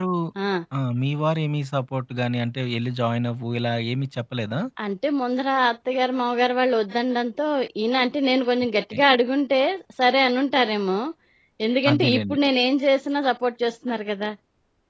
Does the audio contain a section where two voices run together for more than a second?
No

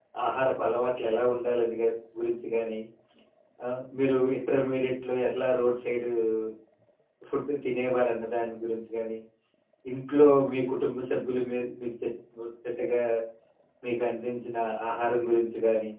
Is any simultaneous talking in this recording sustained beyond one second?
No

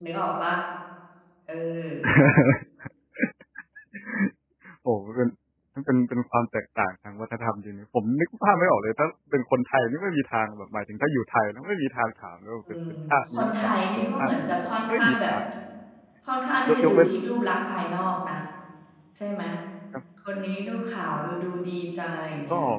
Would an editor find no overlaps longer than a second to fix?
No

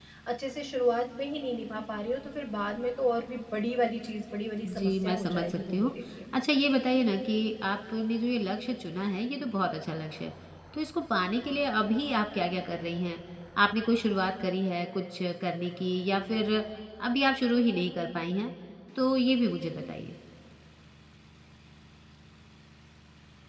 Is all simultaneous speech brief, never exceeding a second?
No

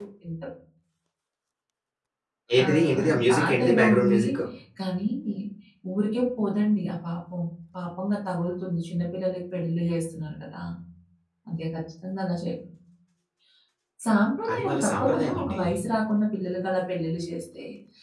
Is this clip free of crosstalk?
No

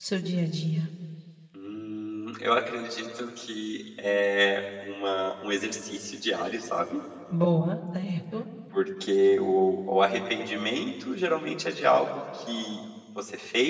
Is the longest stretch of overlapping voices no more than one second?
Yes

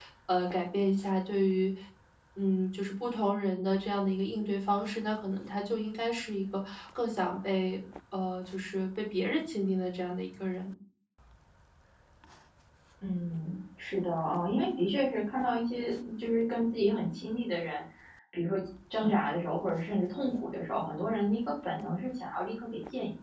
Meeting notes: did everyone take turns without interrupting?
Yes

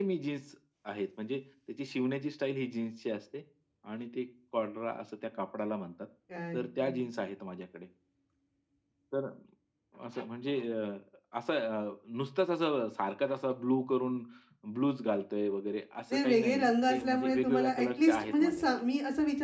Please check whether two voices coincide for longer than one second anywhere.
Yes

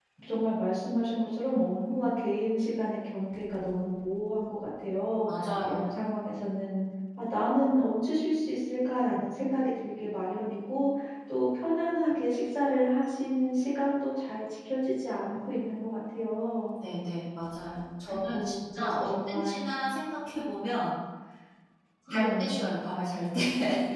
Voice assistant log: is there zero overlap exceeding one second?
No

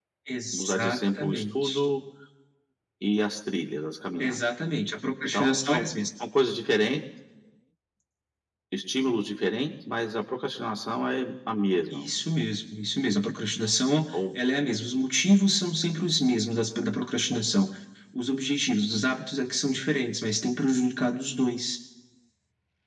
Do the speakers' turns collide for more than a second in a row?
Yes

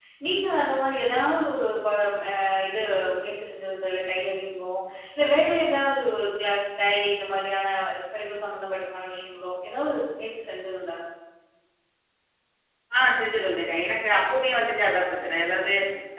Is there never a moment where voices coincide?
Yes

